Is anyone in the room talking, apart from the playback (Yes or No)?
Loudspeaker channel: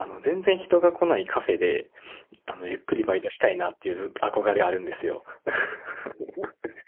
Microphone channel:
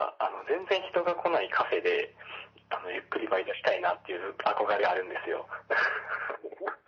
No